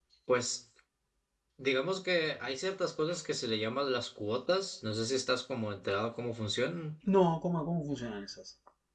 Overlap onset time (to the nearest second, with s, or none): none